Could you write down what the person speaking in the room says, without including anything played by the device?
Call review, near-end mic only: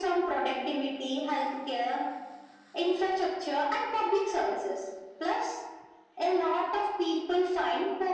none

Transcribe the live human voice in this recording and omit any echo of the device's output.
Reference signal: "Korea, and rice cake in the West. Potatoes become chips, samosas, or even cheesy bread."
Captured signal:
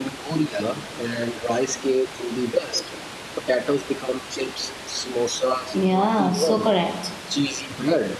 Yeah, so correct.

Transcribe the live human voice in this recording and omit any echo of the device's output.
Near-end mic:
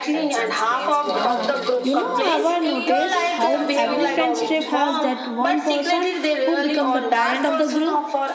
Yeah, you know, I've noticed how every friend's trip has that one person who becomes the parent of the group.

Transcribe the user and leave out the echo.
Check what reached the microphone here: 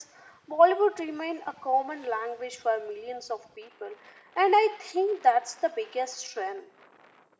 none

